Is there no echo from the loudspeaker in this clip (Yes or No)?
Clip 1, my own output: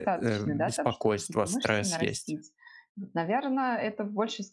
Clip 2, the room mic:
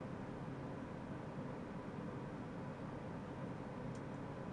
Yes